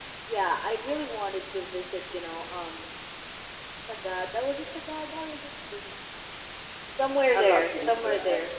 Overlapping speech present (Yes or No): Yes